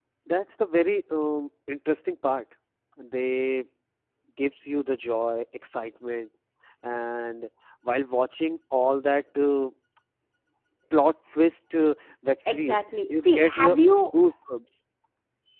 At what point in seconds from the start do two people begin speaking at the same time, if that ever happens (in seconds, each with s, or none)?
12.5 s